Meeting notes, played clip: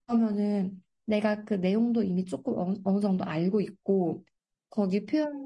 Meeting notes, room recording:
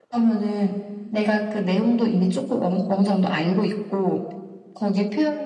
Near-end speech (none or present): none